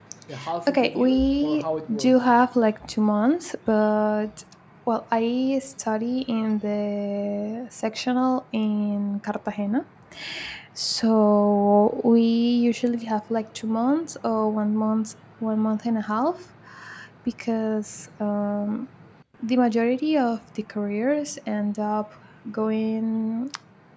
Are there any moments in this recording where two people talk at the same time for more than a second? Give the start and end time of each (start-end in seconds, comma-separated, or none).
0.7-2.2